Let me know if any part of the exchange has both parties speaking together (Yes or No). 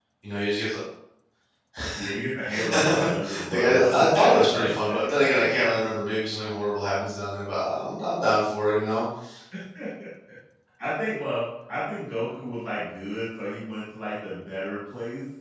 Yes